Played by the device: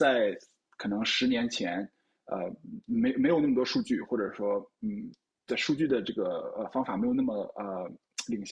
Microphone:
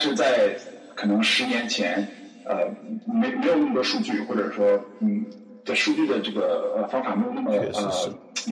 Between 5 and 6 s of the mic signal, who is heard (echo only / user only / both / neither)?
echo only